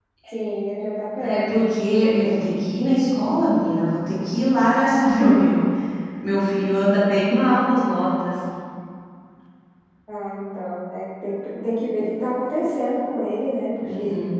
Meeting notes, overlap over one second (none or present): none